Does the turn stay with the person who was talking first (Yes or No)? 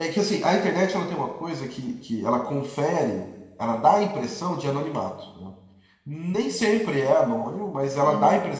Yes